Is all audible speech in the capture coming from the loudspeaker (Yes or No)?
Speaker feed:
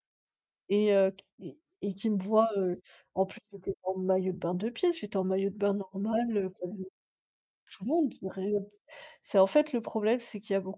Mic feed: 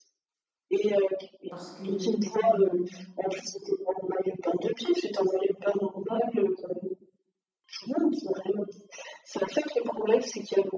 No